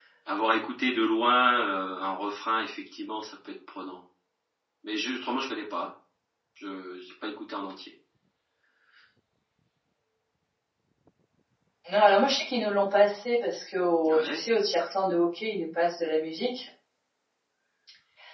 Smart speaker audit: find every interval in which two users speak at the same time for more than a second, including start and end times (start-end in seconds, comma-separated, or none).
none